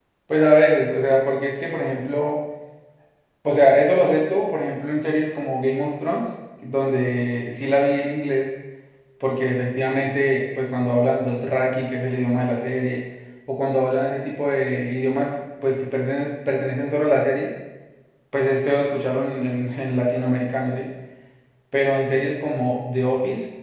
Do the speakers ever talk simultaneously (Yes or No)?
No